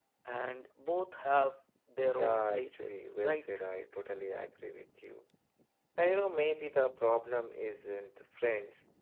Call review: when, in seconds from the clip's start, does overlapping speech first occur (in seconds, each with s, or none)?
2.2 s